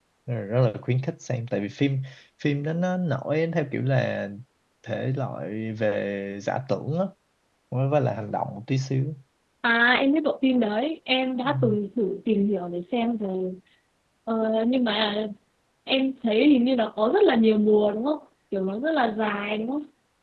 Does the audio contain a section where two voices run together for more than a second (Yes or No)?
No